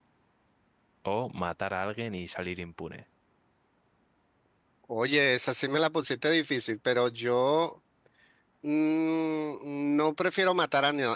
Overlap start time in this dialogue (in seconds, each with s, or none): none